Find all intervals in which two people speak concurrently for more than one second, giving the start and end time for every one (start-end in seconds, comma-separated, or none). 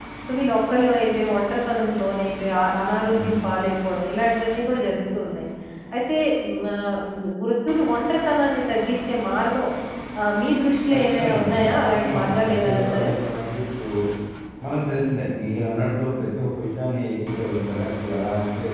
10.9-13.1